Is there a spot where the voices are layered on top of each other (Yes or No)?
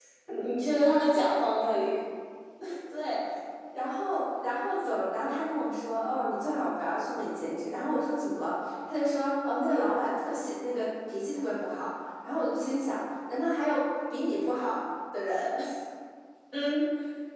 No